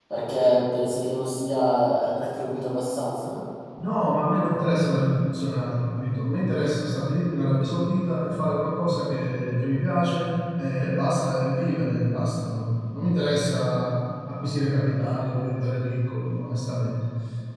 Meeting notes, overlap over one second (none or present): none